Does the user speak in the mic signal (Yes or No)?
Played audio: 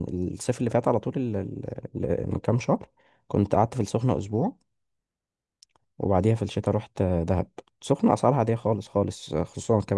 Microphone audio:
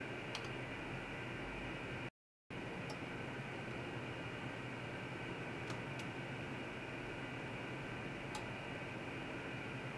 No